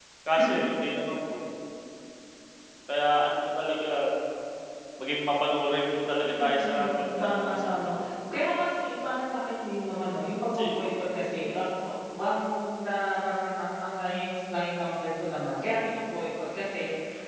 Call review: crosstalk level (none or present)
present